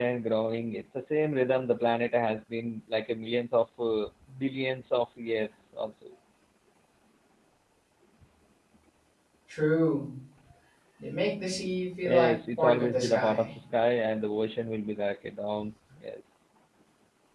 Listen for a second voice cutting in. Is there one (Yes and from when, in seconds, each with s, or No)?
Yes, from 12.0 s